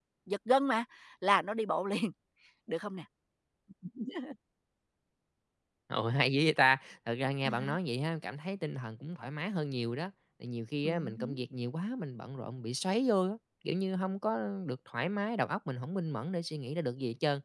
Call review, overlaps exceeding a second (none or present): none